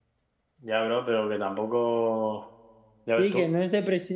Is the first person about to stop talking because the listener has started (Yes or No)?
Yes